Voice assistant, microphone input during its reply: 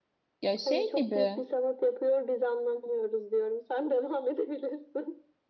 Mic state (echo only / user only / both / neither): both